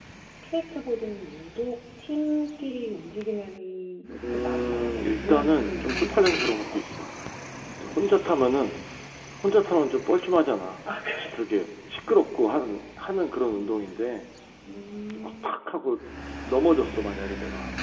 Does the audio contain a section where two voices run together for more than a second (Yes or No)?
Yes